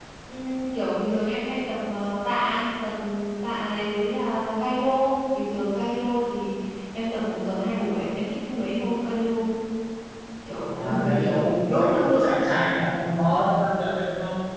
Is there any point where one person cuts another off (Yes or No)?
Yes